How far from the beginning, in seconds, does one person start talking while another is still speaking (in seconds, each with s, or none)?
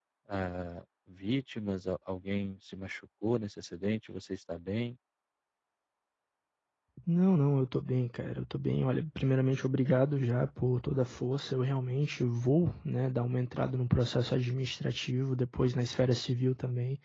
none